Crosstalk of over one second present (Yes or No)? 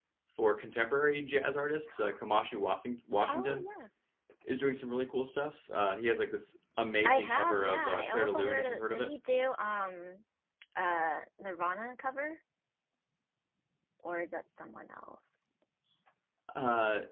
Yes